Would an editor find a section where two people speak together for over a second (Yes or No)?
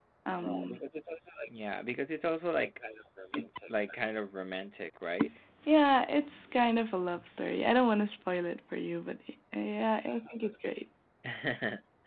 No